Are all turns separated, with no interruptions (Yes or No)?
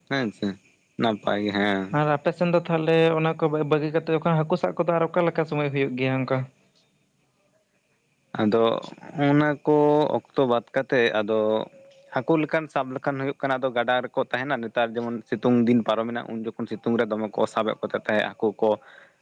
Yes